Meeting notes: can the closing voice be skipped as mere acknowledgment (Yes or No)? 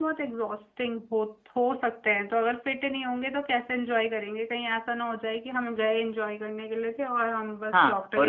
No